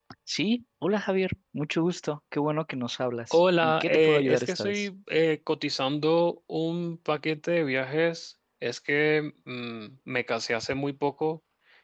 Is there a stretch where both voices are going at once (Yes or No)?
Yes